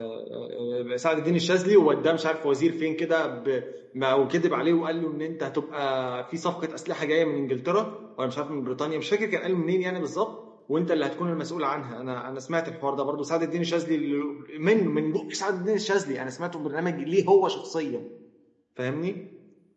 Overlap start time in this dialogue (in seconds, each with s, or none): none